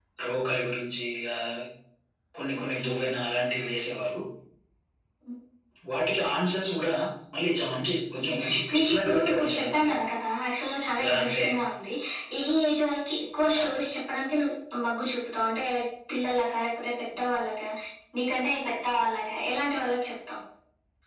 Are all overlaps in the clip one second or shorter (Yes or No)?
No